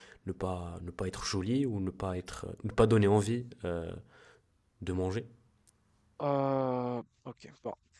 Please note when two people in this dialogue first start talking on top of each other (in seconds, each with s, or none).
none